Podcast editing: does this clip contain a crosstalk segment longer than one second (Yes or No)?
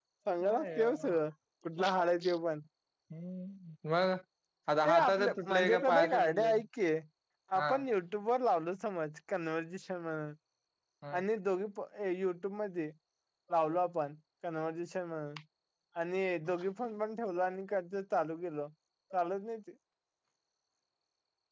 Yes